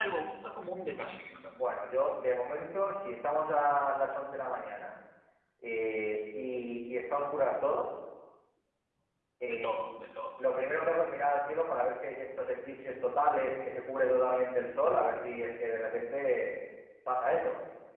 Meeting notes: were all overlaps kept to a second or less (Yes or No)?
Yes